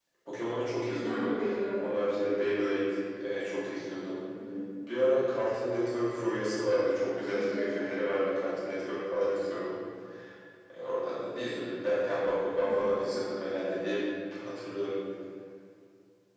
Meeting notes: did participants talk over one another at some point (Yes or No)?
Yes